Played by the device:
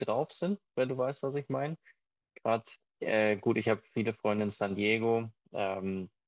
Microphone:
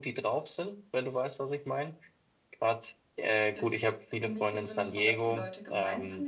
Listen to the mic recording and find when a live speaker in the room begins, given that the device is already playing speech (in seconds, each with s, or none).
3.5 s